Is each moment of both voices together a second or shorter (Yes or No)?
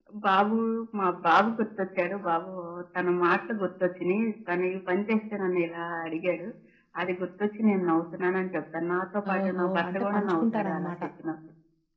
No